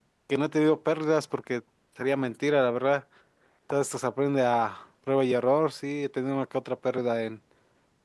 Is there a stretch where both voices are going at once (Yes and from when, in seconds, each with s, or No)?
No